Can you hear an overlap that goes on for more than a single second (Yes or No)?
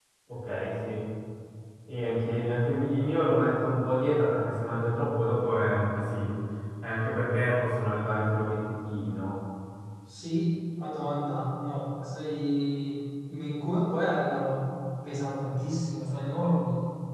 No